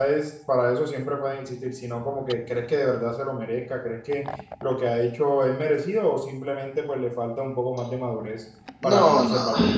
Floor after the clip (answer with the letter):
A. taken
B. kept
A